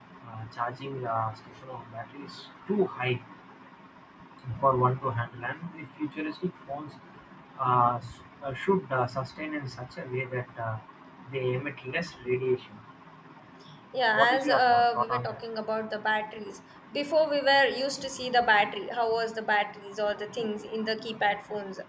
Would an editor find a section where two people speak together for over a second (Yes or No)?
Yes